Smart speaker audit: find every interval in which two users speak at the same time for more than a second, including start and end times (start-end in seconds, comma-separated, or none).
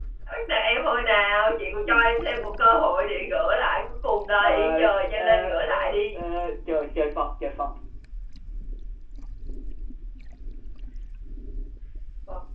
4.4-6.2